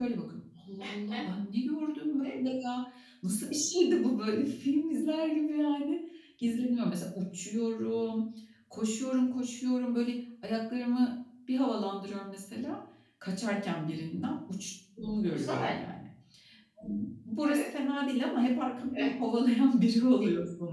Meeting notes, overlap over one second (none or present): none